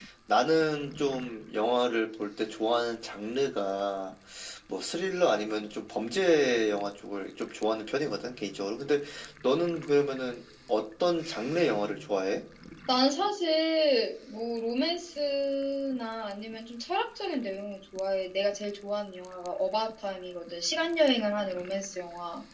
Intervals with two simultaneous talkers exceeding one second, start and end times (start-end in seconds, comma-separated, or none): none